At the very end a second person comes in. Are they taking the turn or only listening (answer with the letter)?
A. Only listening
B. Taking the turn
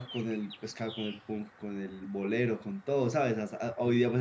A